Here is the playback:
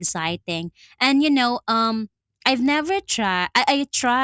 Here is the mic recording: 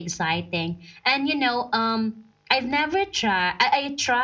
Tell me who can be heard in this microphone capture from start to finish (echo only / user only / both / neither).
echo only